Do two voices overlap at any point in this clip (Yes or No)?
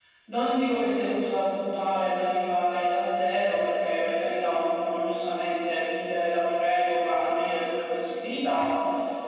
No